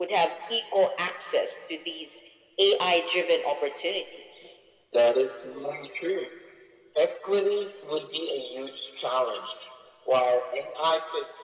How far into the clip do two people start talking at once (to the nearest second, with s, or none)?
none